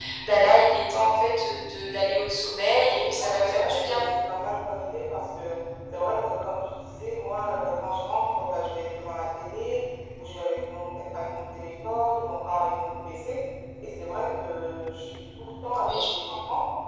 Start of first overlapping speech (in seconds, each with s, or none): 2.8 s